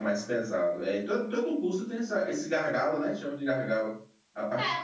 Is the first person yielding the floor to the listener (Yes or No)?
Yes